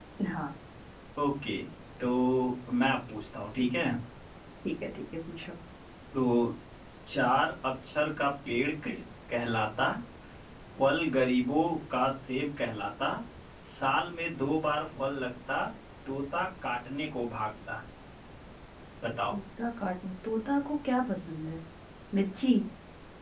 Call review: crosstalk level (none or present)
none